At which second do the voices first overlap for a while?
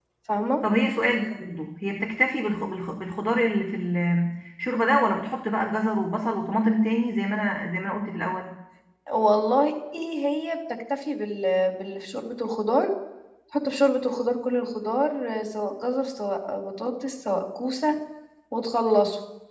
none

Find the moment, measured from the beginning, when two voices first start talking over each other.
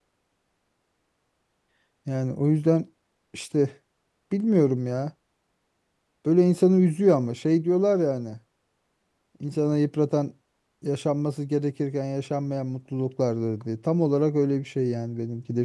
none

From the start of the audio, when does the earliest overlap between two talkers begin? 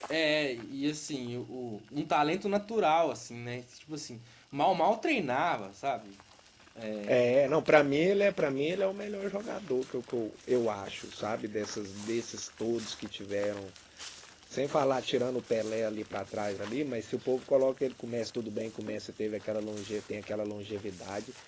none

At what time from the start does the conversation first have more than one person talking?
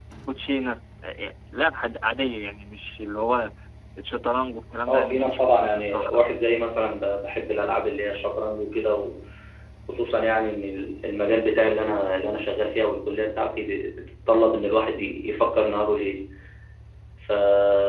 4.9 s

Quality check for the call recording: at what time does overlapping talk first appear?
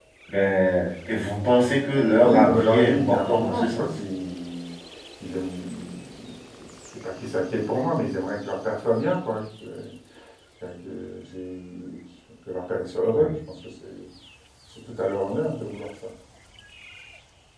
2.2 s

